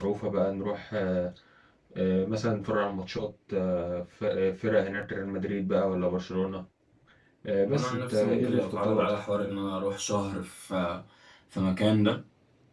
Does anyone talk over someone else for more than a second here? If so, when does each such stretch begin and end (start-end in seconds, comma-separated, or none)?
7.7-9.1